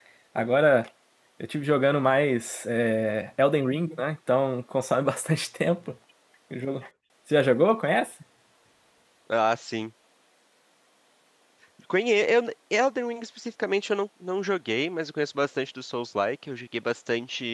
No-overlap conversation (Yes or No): Yes